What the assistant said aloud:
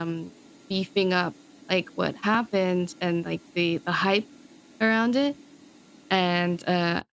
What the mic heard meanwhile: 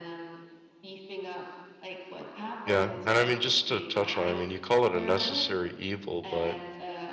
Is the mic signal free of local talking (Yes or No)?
No